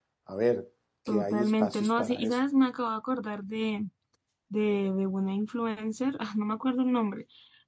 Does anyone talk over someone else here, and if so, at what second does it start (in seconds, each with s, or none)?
1.1 s